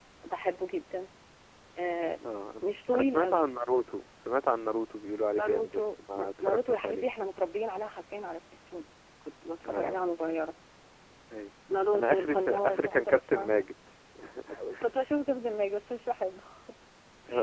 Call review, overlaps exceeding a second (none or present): present